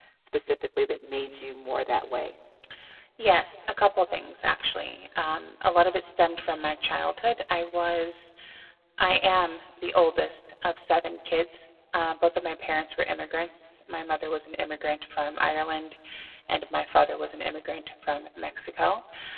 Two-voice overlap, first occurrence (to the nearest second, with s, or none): none